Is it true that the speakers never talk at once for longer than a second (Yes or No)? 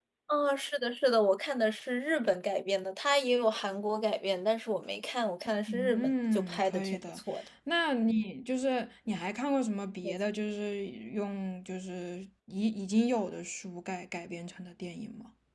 No